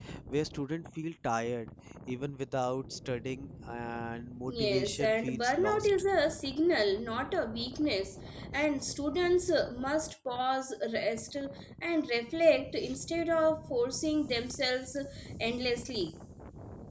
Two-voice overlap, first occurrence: 4 s

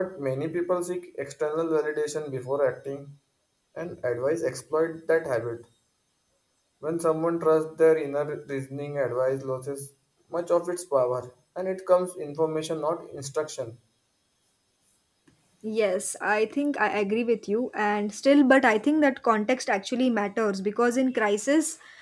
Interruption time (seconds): none

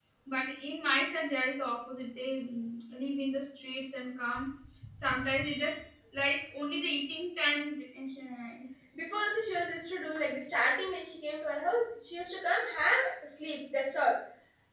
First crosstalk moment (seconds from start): none

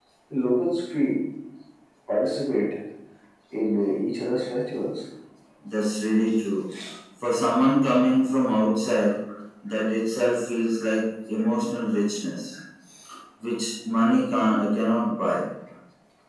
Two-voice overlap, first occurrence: none

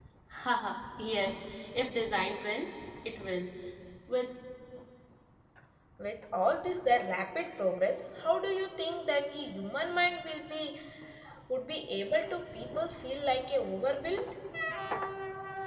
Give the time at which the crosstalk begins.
none

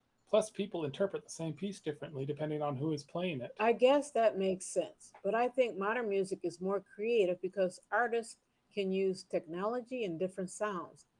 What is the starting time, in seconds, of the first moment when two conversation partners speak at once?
none

